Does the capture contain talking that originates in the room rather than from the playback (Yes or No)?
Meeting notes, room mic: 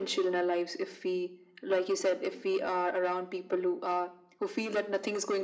No